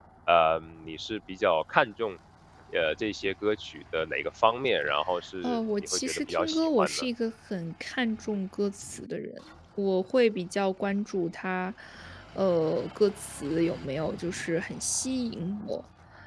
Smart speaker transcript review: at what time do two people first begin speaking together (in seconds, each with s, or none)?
5.4 s